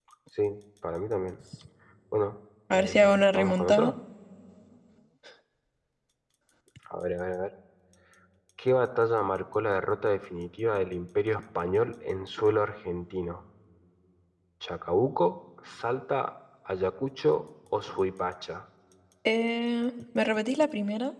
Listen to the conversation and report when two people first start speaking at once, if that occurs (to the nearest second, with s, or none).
3 s